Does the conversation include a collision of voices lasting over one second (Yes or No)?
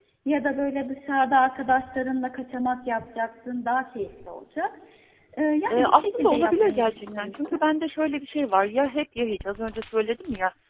Yes